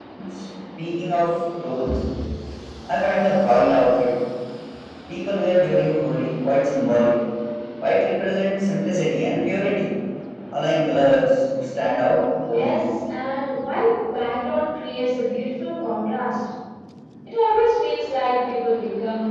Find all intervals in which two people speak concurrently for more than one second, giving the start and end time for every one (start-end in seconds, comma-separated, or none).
none